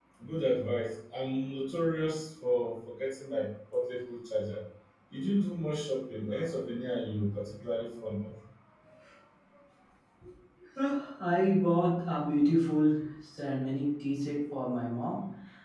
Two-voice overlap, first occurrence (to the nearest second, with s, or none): none